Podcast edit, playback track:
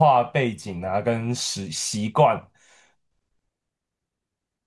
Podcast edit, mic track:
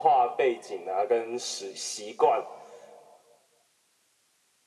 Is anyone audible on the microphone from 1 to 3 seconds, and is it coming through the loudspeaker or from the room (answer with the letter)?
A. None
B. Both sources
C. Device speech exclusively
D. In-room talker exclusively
C